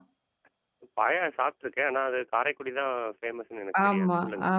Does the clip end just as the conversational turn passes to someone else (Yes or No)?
Yes